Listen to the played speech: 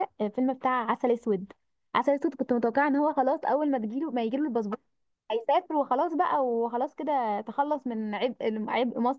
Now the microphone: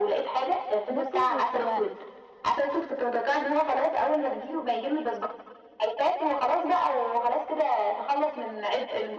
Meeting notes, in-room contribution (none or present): present